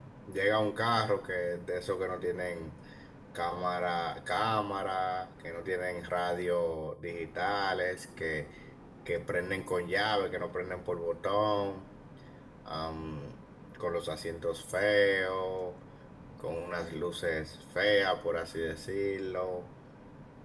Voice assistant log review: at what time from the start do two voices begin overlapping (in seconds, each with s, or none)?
none